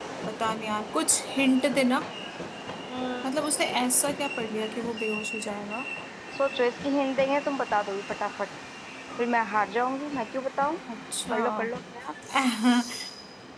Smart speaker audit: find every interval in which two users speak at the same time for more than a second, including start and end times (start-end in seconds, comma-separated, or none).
none